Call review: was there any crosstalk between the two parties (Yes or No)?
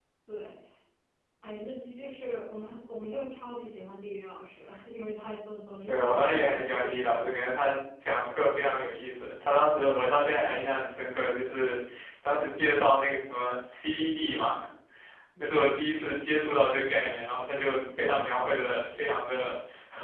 Yes